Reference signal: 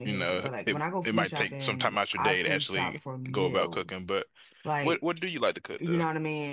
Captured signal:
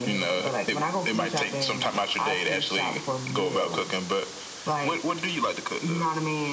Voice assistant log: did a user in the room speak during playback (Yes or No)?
No